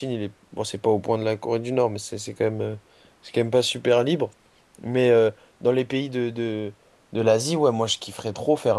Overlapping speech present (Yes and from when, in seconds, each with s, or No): No